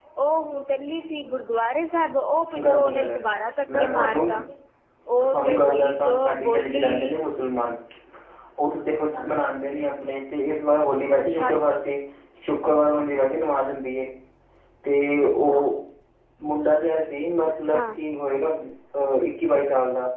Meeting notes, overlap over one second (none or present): present